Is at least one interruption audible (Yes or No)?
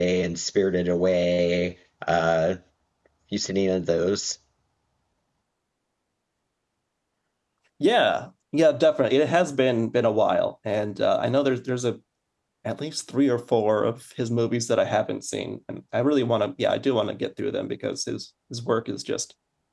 No